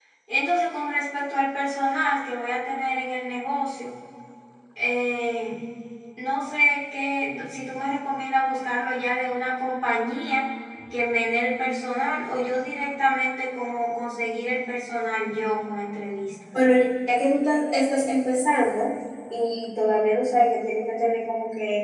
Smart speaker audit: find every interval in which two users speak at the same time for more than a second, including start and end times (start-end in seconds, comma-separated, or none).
none